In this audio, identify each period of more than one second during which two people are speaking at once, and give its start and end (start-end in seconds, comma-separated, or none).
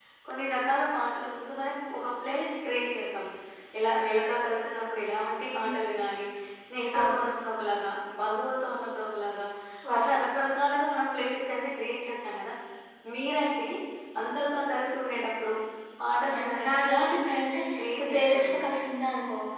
16.3-18.5